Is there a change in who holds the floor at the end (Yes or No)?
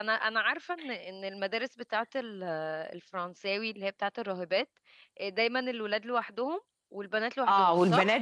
Yes